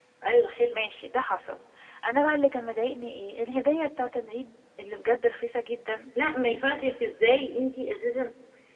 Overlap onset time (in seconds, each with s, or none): none